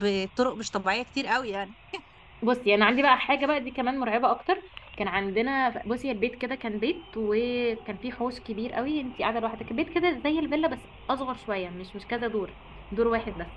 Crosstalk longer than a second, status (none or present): none